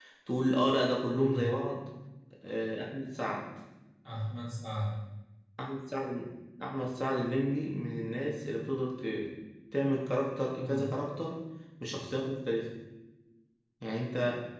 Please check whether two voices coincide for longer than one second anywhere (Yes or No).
No